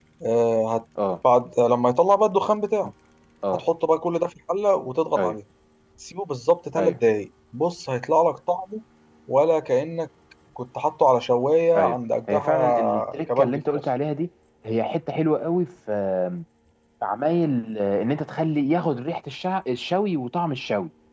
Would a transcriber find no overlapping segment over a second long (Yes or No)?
No